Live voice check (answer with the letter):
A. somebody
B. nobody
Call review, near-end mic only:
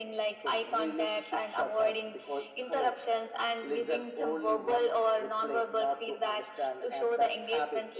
B